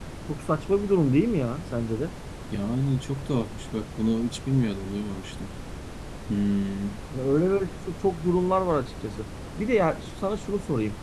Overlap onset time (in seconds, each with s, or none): none